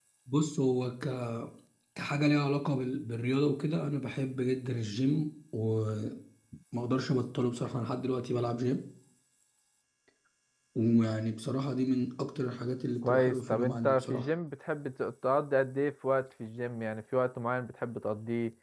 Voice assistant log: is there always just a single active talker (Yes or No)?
No